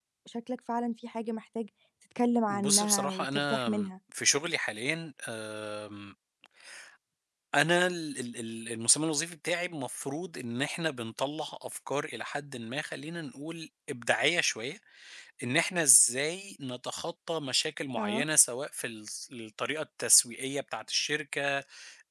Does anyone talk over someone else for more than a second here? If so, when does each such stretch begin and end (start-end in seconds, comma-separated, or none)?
2.5-3.7